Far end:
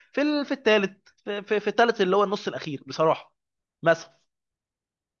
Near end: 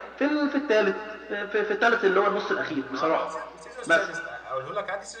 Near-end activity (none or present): present